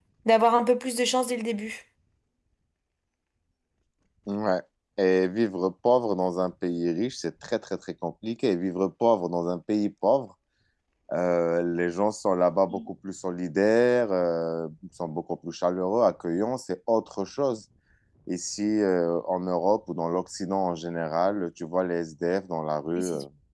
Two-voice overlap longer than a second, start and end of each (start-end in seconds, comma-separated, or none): none